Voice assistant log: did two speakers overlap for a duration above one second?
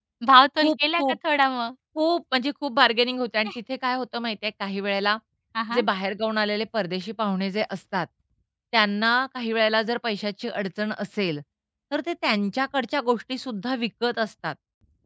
No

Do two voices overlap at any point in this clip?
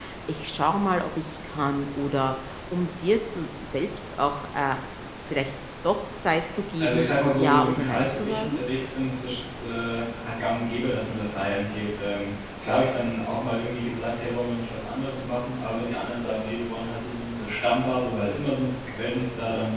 Yes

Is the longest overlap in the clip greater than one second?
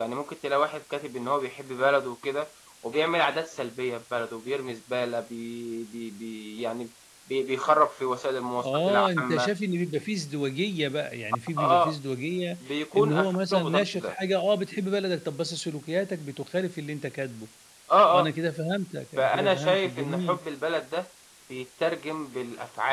Yes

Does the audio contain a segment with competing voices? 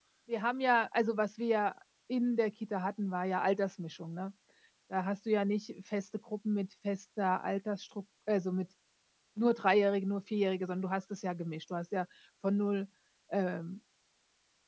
No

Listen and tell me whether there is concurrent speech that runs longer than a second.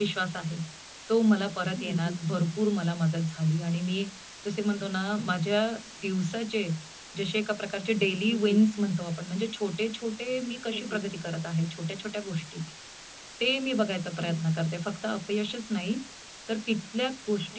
No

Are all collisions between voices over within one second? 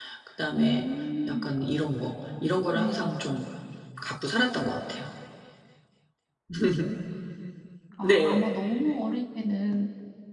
Yes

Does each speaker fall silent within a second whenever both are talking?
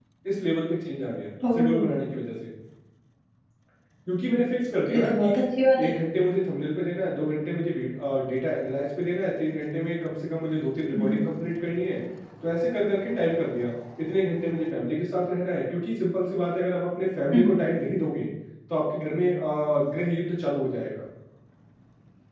Yes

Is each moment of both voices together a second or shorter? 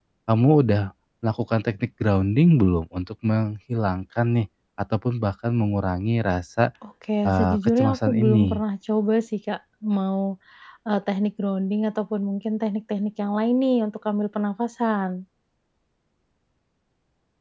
No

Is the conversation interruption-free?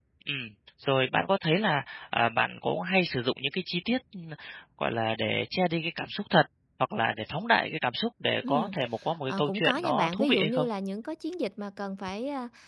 No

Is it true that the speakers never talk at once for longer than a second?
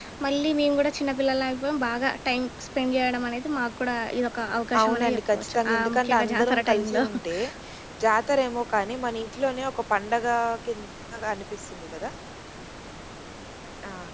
No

